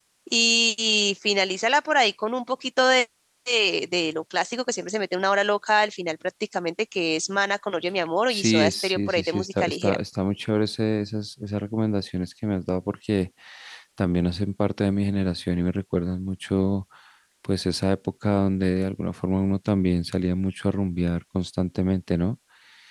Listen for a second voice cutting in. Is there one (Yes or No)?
Yes